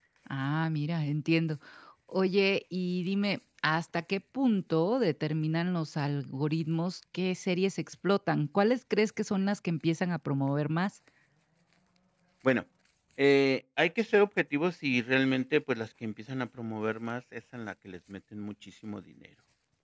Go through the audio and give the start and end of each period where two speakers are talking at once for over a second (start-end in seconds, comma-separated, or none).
none